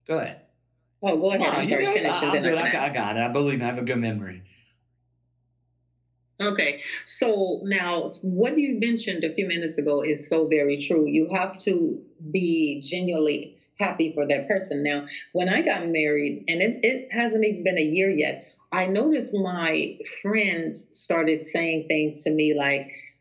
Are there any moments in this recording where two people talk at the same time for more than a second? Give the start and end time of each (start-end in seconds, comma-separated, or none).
1.3-2.8